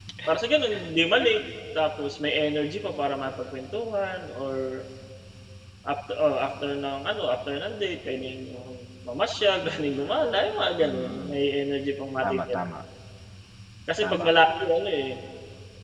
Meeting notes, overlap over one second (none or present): none